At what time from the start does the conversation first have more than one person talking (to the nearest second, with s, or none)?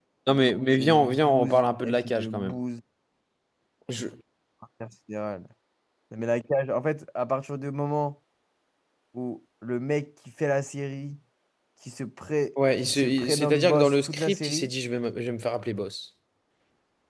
1 s